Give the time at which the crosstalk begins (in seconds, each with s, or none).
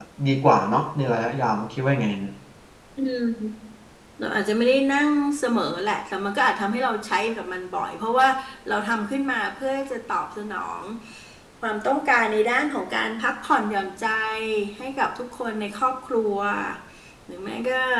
none